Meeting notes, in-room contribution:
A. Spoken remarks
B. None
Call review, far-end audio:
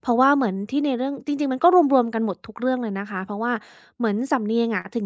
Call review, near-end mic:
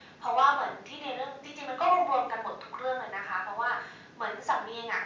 B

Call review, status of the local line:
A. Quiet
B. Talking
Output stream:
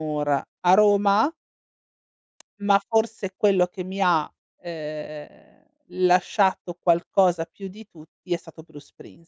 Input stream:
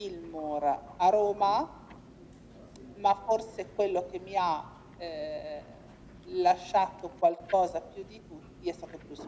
A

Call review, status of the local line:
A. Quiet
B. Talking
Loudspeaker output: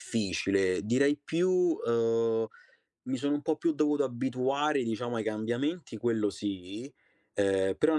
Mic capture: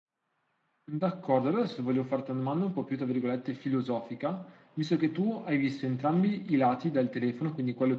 B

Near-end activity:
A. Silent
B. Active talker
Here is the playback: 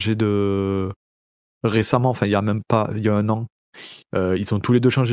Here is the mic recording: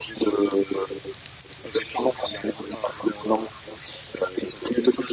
A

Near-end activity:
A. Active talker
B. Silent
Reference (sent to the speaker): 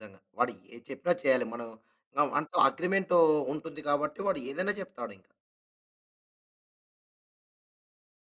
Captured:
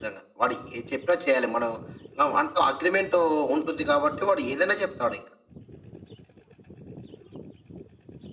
B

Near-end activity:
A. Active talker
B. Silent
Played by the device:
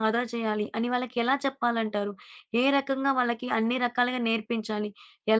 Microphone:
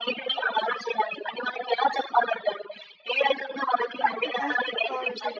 A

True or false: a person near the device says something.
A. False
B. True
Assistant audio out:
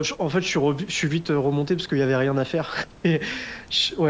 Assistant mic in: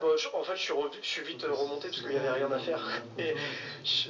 B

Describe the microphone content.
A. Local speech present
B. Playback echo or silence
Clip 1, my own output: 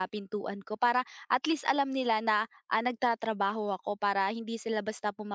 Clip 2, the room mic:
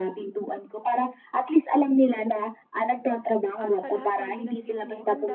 A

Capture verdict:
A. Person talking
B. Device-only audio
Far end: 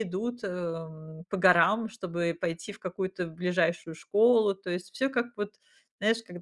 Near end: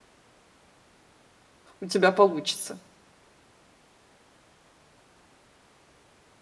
A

